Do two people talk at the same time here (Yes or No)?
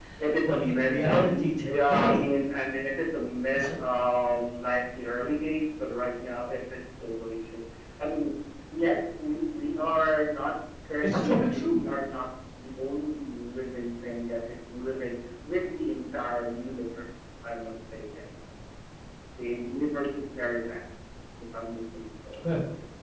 Yes